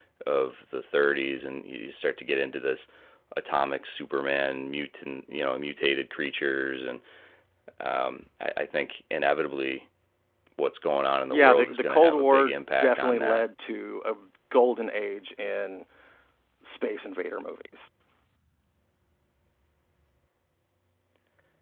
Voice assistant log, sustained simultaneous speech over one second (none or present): present